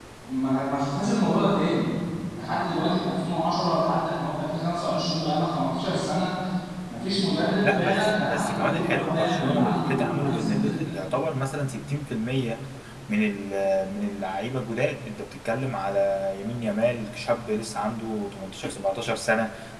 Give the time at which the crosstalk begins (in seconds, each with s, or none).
7.6 s